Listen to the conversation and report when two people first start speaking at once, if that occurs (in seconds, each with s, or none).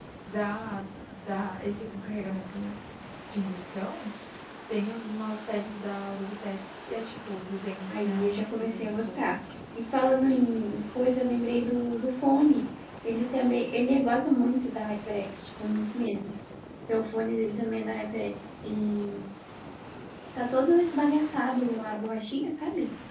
7.9 s